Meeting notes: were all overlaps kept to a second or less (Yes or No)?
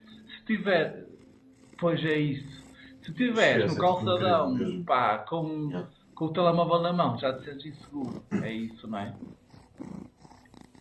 No